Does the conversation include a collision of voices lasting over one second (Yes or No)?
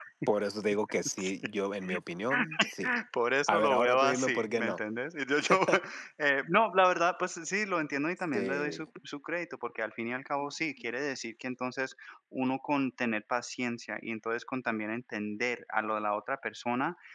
Yes